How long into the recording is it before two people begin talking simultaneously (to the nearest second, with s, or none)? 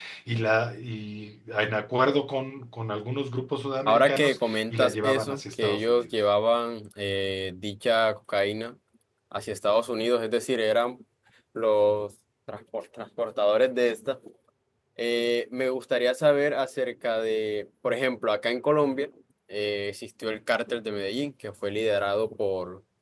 4 s